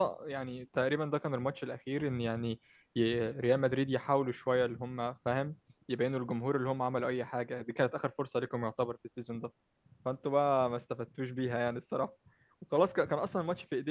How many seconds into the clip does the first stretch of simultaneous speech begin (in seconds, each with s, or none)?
none